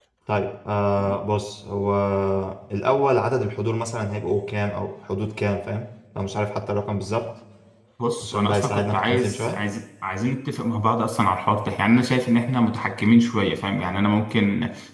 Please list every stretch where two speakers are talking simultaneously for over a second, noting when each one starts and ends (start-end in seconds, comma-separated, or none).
8.2-9.6